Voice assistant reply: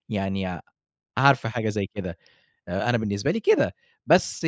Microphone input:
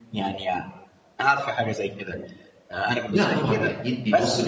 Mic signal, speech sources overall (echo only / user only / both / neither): both